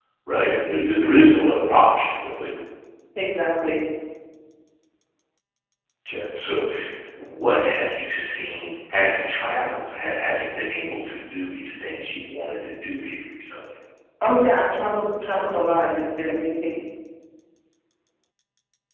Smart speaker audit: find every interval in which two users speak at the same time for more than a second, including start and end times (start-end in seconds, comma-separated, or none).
none